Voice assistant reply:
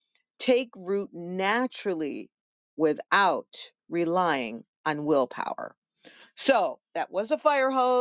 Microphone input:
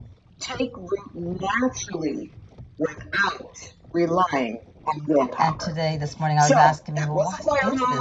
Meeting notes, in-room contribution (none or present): present